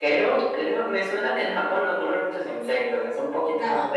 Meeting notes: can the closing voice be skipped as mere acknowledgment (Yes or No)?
Yes